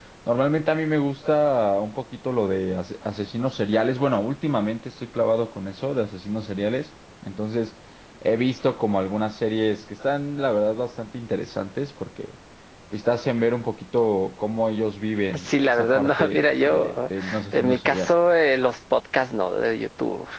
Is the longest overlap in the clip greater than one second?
Yes, from 15.3 s

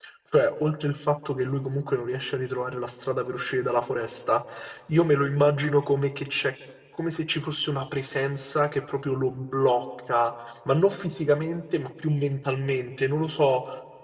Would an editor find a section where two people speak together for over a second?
No

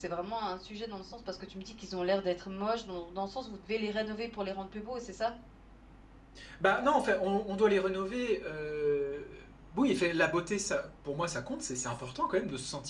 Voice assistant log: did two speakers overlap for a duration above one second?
No

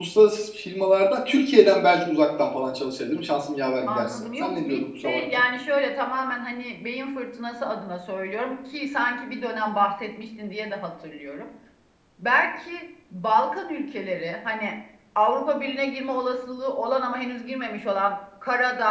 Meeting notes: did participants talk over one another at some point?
Yes, from 3.9 s

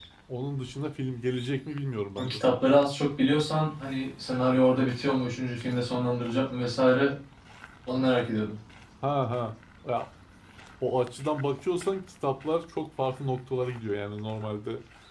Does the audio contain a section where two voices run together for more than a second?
No

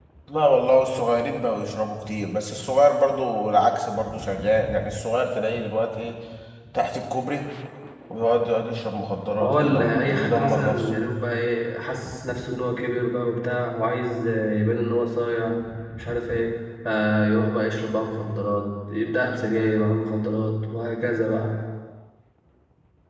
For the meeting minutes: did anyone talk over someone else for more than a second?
Yes, from 9.4 s

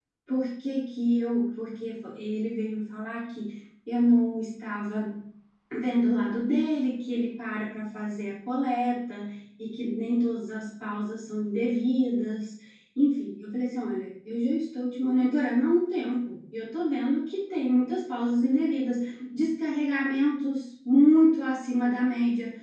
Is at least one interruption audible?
No

